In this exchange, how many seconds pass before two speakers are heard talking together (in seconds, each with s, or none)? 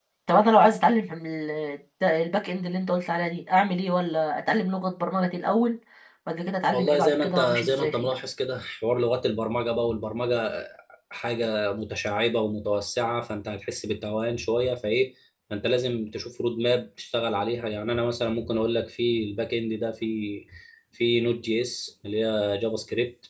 6.7 s